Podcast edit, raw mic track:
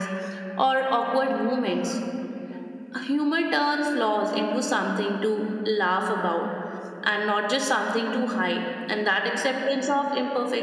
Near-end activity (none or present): none